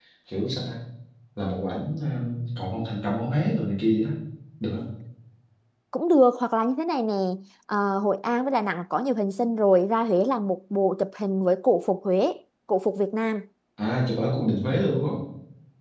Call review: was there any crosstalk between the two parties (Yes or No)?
No